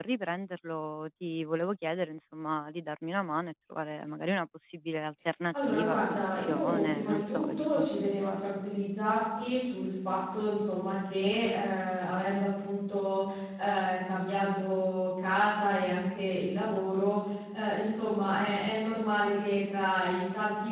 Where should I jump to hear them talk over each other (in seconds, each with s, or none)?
5.5 s